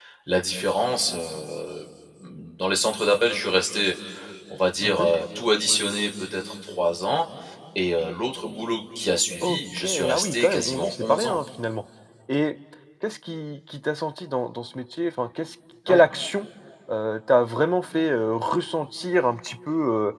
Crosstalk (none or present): present